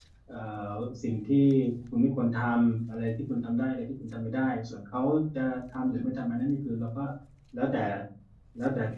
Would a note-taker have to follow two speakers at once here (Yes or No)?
No